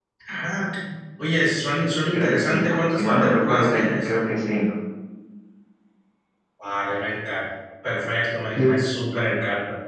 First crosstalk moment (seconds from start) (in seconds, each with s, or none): 2.1 s